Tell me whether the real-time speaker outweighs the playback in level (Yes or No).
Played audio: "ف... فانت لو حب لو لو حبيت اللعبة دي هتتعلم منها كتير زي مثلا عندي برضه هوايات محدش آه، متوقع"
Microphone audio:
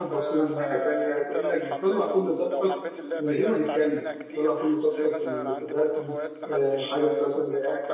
Yes